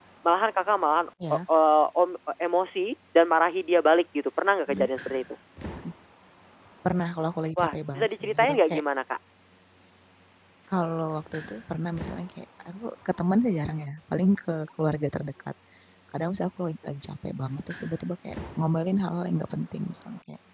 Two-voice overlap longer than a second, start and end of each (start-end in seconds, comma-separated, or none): 7.6-8.8